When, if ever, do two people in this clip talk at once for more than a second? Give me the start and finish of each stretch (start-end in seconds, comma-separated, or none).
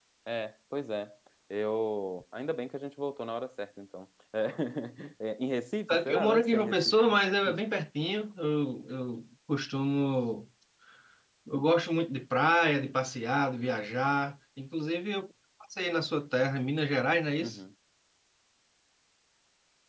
5.9-7.2